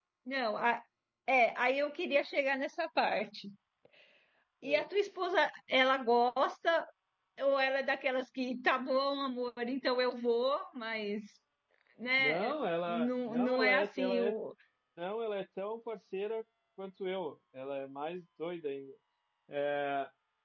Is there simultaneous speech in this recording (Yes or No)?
Yes